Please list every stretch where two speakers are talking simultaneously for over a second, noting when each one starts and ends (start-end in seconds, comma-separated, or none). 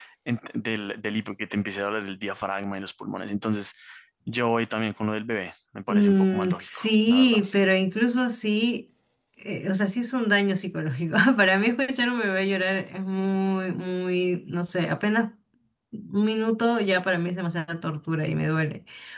5.9-7.4